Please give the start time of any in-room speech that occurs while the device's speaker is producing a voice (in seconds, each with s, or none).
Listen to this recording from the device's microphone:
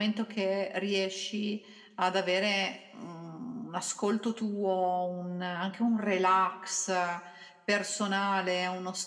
none